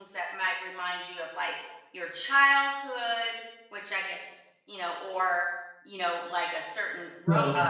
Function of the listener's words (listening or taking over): listening